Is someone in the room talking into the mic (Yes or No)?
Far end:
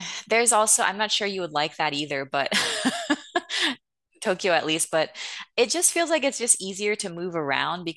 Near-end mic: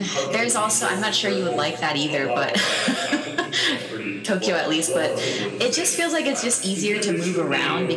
Yes